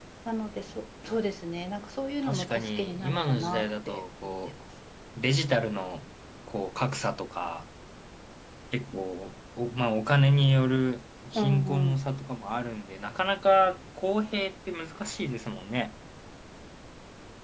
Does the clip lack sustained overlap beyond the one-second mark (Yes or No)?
No